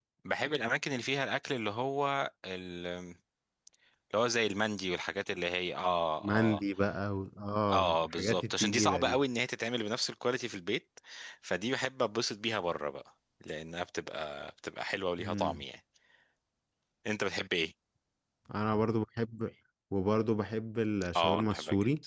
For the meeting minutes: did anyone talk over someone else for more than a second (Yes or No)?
Yes